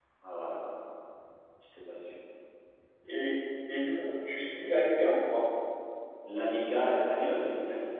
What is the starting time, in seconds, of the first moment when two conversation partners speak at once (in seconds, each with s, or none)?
none